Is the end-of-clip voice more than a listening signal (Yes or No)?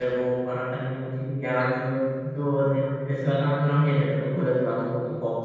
No